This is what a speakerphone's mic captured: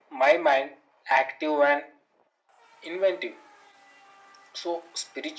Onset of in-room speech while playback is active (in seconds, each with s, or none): none